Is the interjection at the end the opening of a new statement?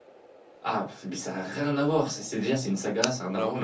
Yes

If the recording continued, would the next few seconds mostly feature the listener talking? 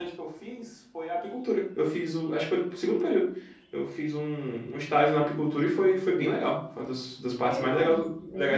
Yes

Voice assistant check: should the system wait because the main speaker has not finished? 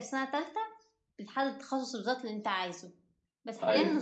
Yes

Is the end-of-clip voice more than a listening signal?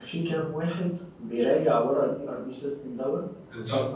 Yes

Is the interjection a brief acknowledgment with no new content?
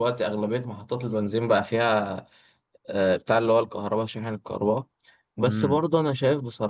Yes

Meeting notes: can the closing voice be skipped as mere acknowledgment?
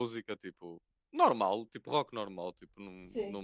Yes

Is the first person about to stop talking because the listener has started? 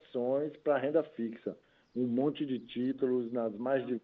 No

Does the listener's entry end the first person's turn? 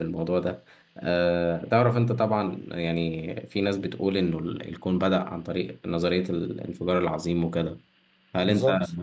No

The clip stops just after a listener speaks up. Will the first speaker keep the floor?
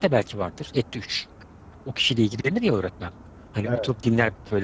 Yes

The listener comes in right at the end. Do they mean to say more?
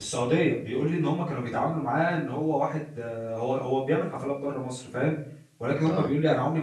No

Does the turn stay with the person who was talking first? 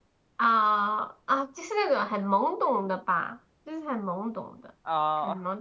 Yes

